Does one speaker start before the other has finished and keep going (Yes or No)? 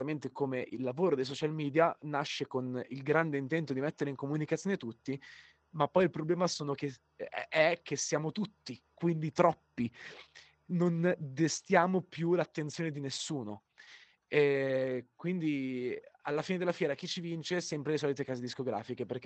No